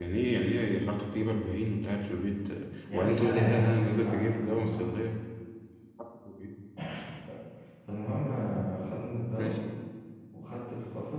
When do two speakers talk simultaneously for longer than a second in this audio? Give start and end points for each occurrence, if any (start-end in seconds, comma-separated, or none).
2.9-5.0